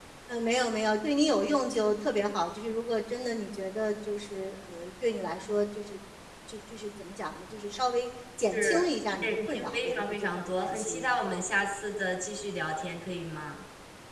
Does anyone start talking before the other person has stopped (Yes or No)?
Yes